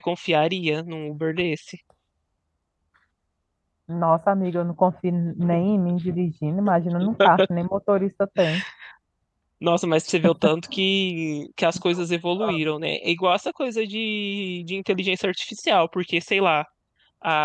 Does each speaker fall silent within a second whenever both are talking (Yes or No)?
Yes